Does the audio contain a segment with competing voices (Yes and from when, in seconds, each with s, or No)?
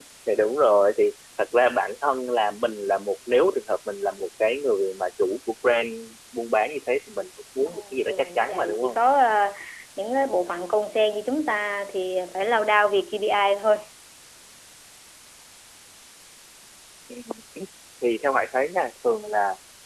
Yes, from 7.7 s